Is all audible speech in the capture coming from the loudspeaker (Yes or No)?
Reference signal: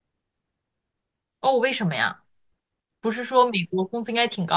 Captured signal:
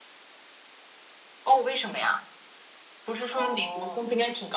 No